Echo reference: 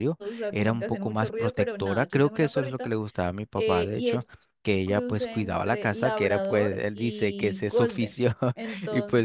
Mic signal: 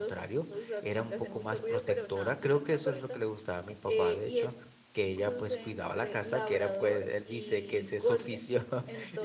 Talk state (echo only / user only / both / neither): echo only